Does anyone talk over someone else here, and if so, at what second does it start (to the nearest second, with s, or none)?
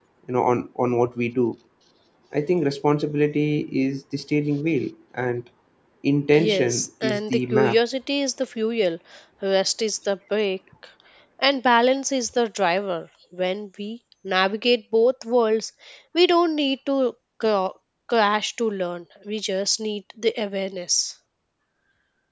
6 s